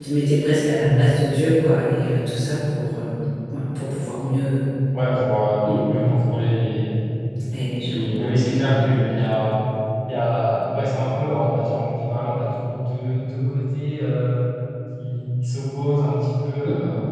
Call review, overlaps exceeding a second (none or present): none